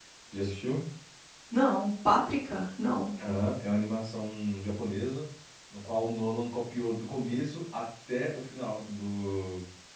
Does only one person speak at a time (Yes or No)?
Yes